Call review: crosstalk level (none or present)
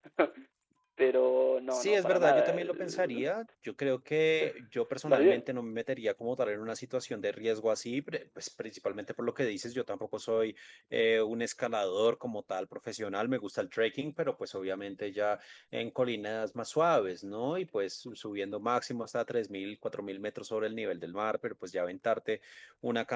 present